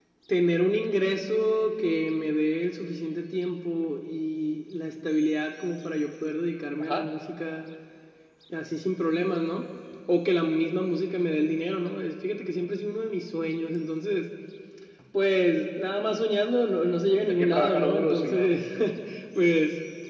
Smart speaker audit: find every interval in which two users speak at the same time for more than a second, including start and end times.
17.3-18.5

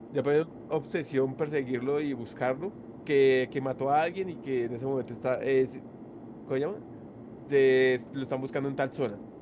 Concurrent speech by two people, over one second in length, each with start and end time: none

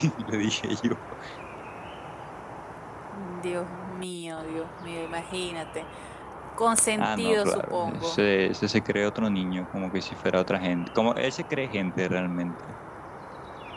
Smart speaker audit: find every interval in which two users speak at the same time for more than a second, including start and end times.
7.0-8.2

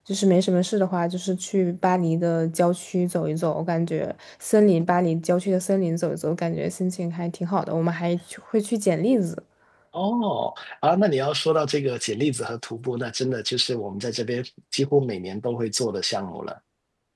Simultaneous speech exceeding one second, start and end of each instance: none

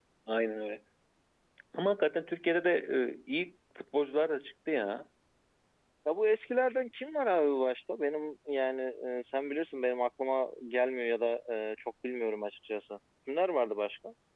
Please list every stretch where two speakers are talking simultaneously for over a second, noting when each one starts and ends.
none

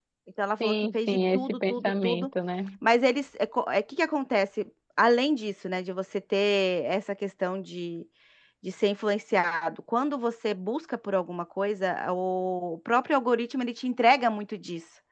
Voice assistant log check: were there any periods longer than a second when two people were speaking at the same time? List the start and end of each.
0.6-2.3

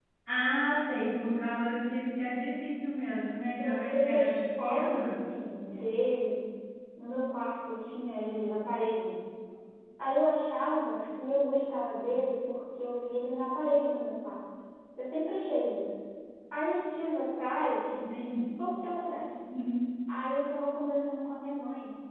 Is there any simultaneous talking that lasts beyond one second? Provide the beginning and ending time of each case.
3.6-5.2

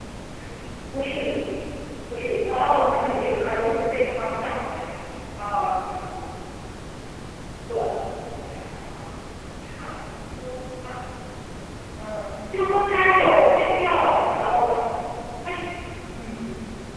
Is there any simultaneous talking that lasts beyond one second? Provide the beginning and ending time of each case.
2.6-3.8

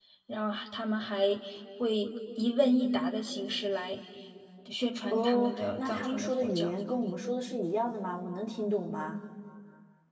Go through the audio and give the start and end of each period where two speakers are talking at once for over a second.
5.1-6.7

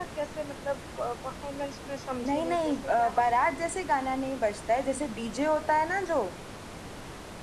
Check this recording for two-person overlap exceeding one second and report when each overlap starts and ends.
2.3-3.5

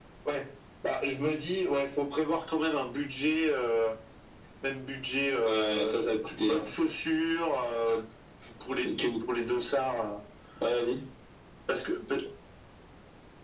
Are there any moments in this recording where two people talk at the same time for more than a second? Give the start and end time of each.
5.4-6.7

